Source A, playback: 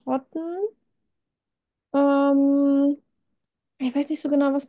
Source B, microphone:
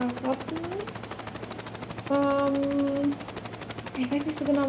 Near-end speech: none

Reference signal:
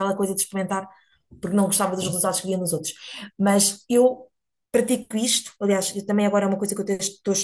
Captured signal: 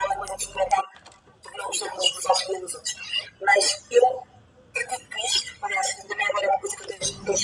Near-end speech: none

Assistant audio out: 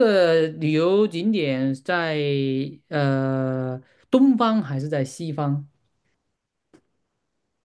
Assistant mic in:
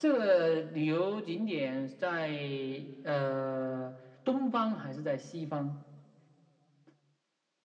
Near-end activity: none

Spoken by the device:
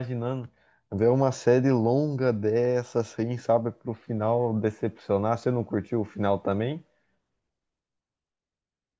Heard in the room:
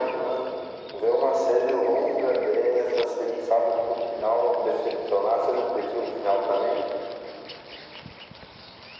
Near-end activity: none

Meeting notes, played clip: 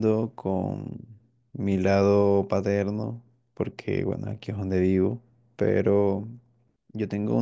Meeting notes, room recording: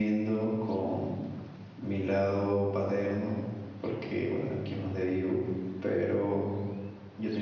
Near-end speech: none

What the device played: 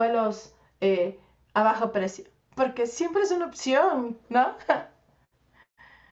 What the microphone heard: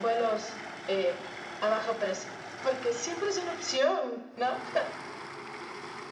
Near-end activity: none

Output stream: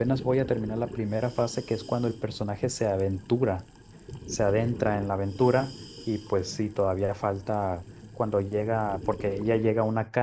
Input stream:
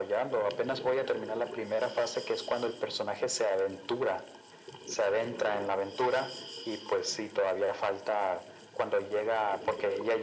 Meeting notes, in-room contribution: none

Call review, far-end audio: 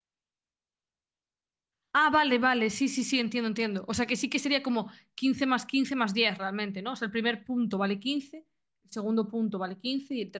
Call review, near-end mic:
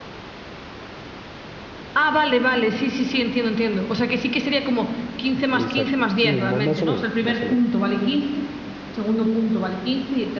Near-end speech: present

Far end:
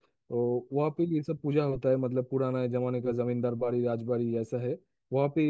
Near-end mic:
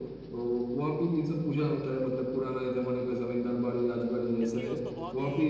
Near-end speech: present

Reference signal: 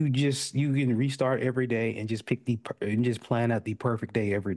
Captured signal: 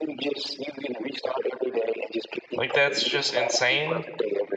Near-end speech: present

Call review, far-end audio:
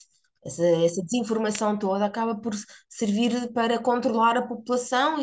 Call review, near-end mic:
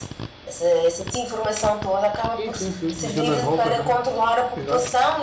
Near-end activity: present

